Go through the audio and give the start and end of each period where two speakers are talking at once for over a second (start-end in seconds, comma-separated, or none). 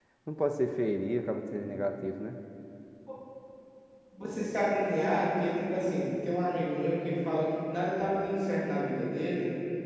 none